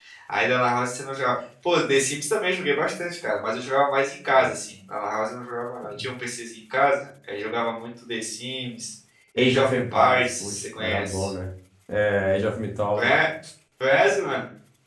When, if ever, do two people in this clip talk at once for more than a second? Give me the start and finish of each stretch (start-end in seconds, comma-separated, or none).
9.4-11.3